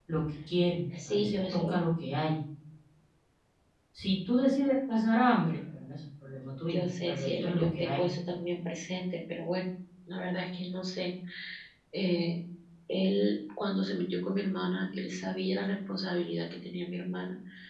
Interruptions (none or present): present